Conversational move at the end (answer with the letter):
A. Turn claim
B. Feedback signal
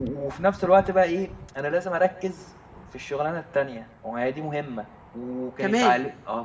B